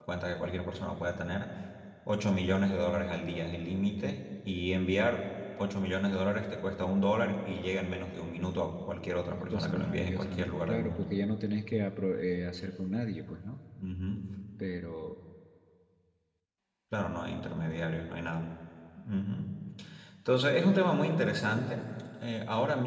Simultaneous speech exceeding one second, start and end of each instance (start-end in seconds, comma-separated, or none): 9.5-11.1